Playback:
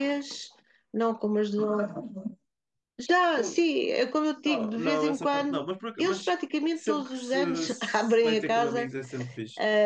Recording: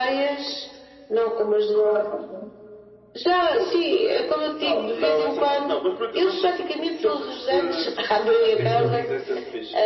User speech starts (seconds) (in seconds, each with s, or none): 8.5 s